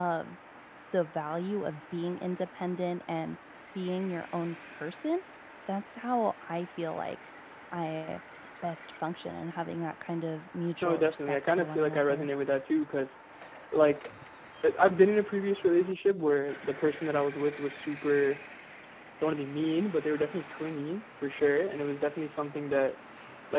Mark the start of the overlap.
10.8 s

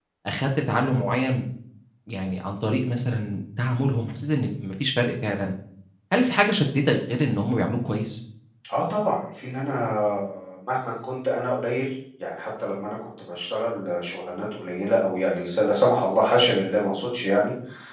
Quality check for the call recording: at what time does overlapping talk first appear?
none

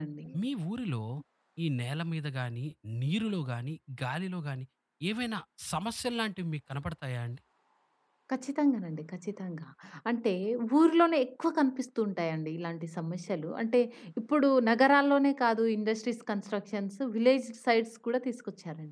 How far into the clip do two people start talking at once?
none

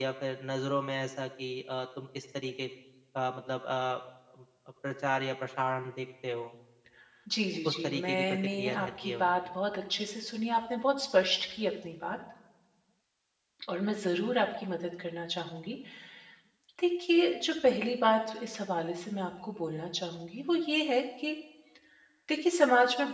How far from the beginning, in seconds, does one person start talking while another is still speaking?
7.6 s

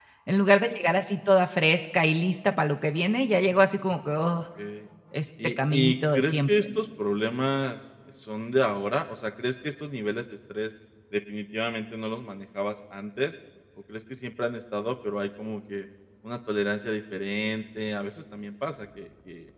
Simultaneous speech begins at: 5.4 s

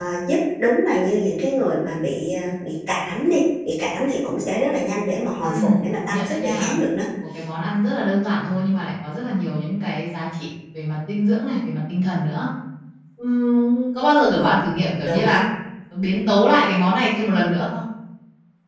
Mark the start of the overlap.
5.4 s

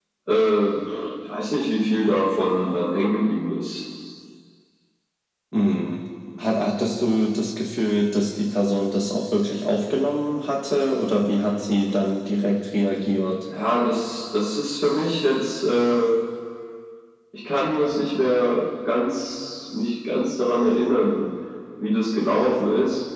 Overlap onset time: none

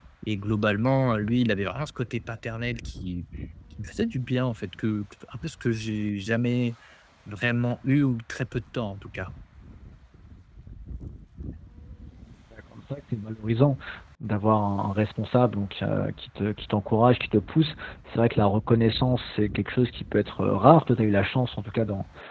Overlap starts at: none

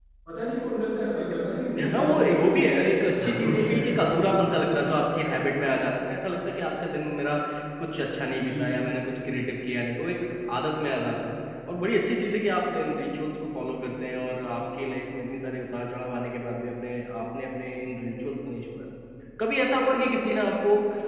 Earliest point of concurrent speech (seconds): 1.8 s

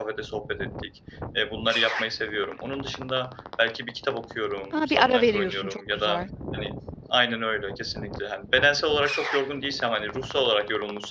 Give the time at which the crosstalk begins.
4.7 s

